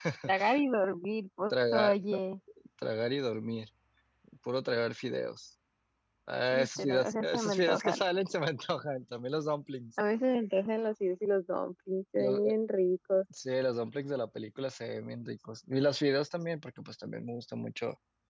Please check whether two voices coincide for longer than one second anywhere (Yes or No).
Yes